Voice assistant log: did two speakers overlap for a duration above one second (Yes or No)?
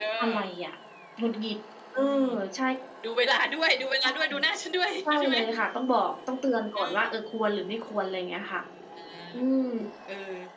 No